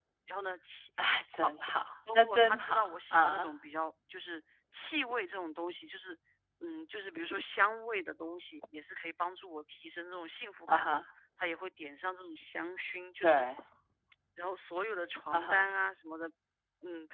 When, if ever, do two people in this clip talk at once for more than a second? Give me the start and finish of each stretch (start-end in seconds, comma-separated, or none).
2.1-3.5